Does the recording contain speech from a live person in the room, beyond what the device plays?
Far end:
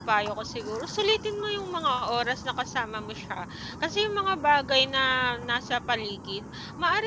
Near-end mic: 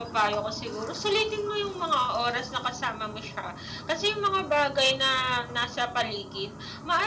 No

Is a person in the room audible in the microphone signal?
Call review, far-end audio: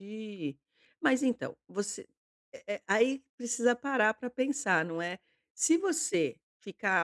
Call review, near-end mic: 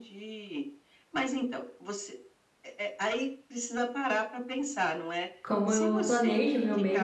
Yes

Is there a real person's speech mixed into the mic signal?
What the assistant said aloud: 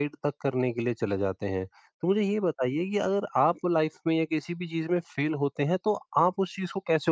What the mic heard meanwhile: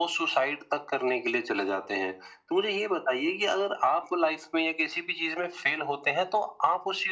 No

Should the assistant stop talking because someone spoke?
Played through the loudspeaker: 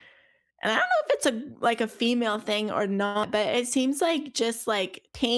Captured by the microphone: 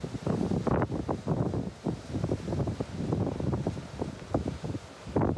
No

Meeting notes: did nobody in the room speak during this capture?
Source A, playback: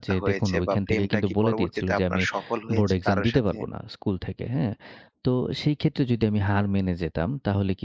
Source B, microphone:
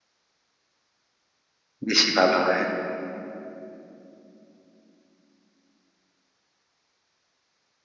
No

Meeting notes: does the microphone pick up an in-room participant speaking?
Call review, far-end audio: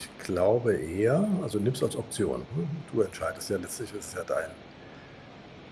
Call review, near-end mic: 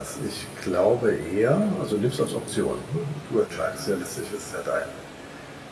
No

